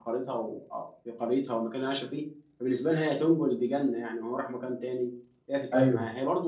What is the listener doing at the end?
listening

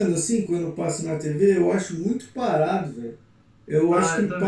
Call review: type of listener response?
taking over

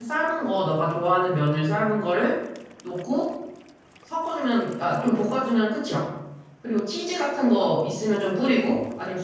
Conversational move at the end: listening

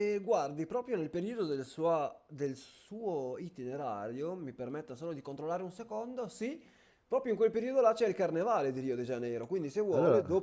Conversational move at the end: listening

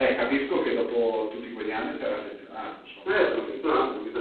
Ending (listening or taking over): taking over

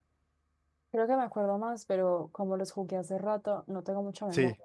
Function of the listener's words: listening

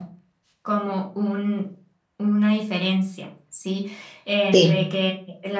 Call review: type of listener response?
listening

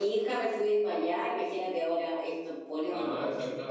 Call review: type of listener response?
taking over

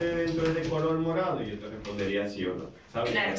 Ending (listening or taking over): taking over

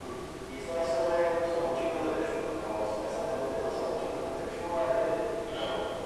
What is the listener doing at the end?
listening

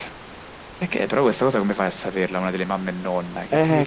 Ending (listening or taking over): taking over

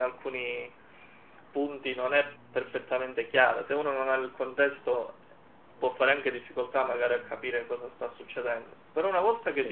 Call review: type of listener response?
listening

